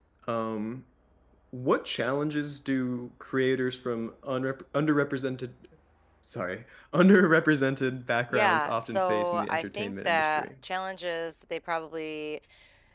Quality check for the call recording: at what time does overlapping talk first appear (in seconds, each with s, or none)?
8.3 s